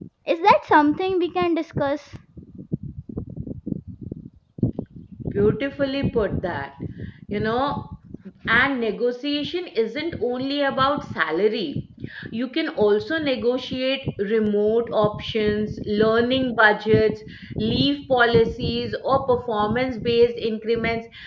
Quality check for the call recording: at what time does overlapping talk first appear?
none

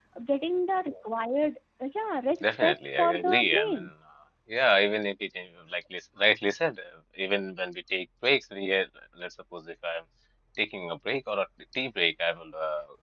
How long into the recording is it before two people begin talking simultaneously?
2 s

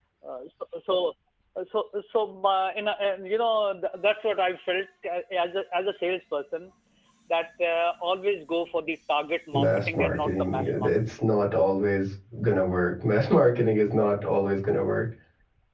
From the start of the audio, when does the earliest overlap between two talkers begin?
10 s

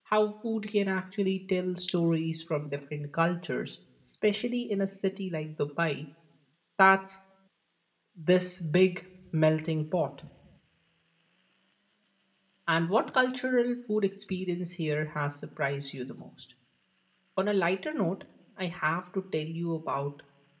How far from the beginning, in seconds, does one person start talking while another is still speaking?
none

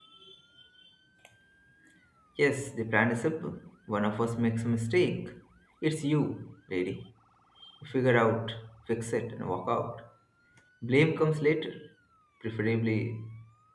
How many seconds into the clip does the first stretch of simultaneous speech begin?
none

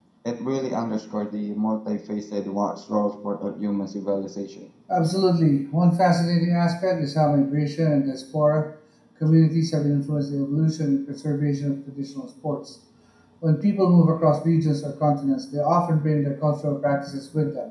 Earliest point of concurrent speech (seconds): none

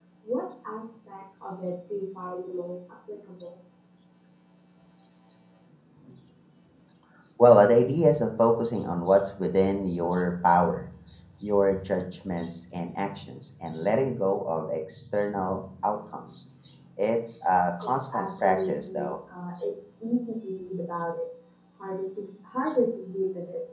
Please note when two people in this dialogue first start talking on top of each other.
18 s

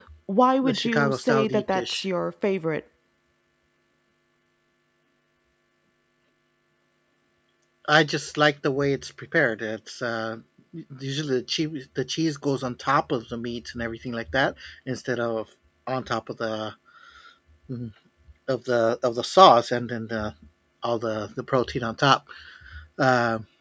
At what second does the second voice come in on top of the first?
1 s

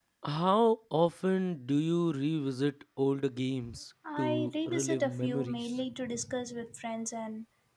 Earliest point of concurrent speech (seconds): 4 s

